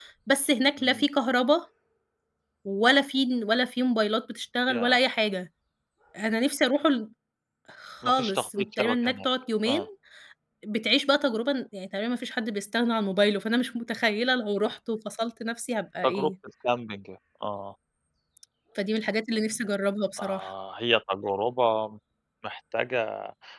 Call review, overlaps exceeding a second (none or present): present